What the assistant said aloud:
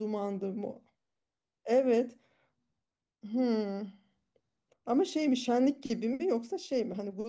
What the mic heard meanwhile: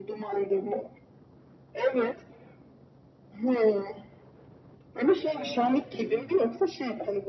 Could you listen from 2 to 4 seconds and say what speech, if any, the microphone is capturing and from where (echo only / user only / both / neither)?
echo only